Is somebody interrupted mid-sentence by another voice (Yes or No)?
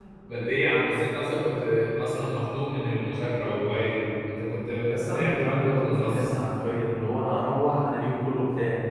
Yes